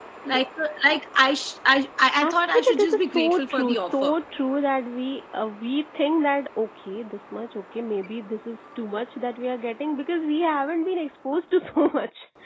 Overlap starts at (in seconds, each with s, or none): 2.2 s